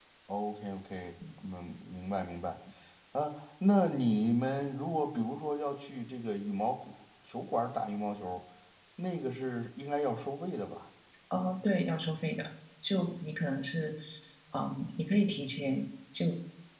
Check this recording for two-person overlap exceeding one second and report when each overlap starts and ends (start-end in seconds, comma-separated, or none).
none